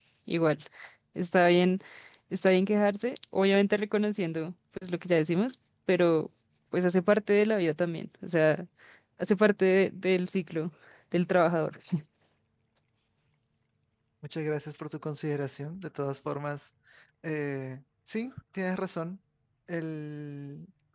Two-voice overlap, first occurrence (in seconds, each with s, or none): none